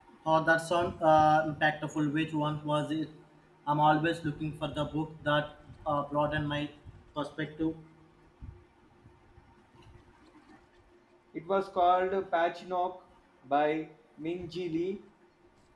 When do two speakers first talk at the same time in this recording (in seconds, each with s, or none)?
none